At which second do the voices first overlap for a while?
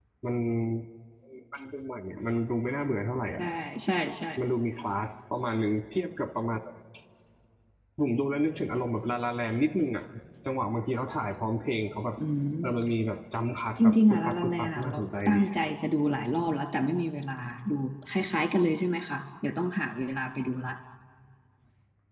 14 s

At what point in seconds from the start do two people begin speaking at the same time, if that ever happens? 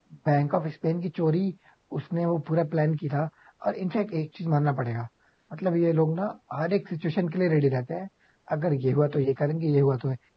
none

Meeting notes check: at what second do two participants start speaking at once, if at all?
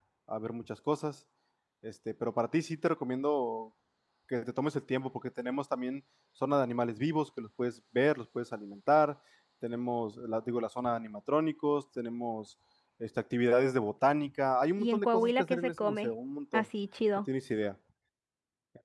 15 s

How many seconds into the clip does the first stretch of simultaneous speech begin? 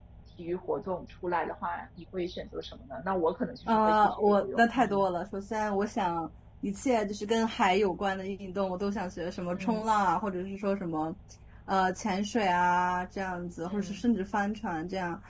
4 s

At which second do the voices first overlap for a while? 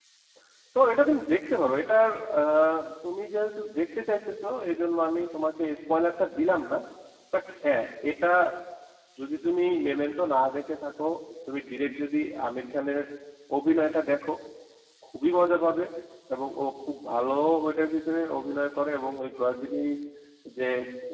none

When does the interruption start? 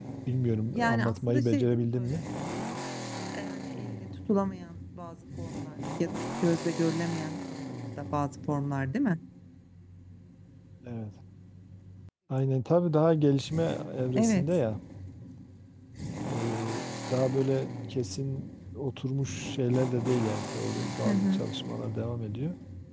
1 s

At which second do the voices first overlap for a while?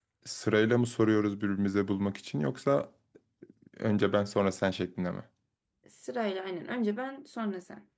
none

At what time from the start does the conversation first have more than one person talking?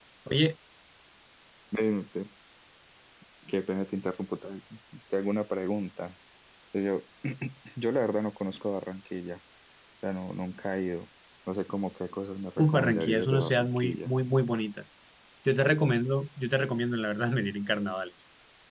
13 s

